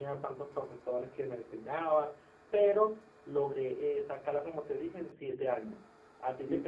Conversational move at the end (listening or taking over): listening